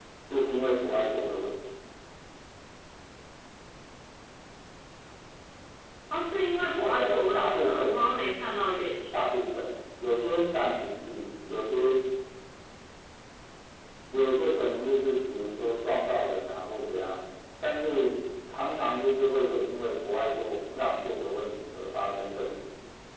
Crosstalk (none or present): present